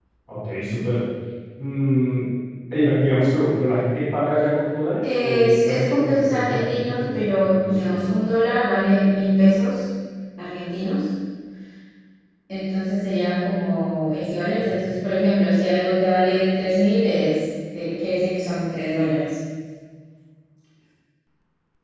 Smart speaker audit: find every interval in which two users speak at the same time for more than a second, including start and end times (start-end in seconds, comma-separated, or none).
5.0-8.1